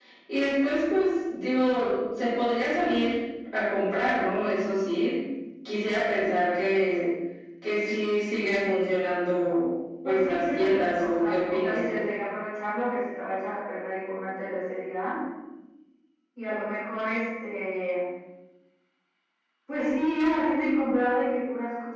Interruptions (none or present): present